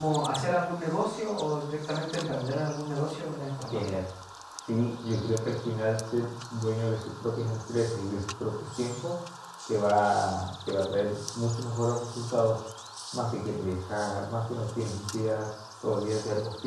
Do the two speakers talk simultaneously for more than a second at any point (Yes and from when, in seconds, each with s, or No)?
No